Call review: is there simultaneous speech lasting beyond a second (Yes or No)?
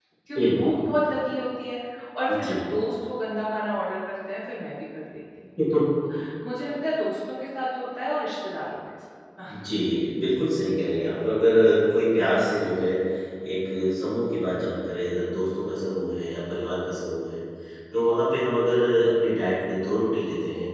No